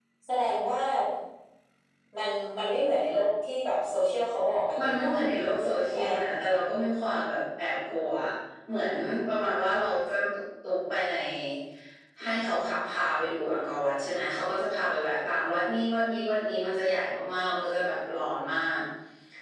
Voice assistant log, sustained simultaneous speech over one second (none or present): none